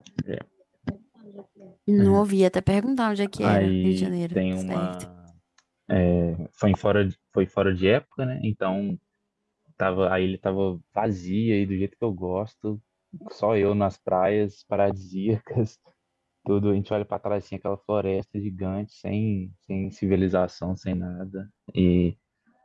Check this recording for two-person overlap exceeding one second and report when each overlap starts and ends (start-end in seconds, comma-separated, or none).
3.4-4.9